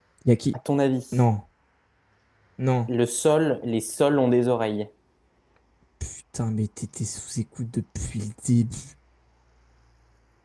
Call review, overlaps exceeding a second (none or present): none